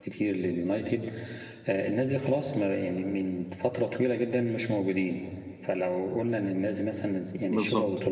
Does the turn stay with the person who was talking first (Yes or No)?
Yes